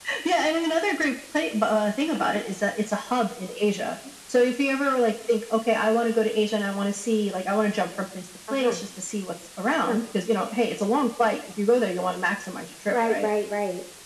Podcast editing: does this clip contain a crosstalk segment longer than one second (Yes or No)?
No